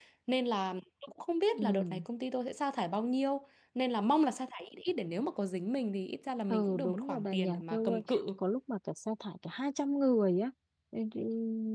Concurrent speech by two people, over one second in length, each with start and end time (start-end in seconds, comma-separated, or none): 6.5-8.0